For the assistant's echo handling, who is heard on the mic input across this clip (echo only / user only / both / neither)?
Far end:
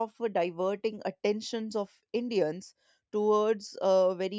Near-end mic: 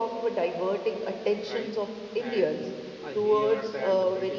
both